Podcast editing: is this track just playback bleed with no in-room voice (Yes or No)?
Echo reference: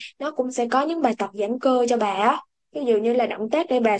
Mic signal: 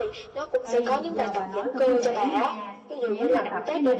No